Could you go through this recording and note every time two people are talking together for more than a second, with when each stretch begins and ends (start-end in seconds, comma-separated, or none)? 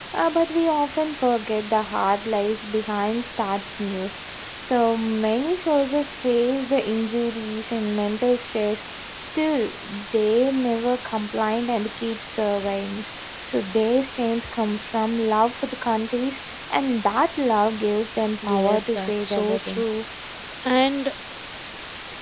18.4-19.8